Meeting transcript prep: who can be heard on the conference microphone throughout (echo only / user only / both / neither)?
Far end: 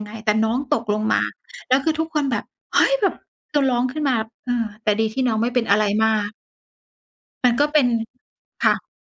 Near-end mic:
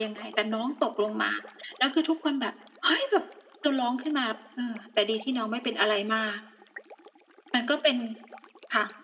echo only